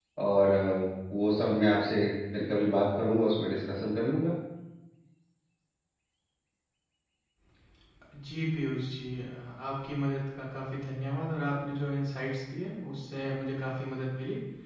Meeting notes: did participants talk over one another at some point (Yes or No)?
No